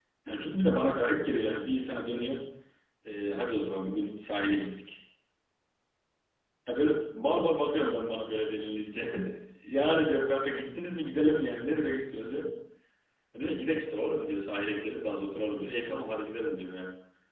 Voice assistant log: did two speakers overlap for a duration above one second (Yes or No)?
No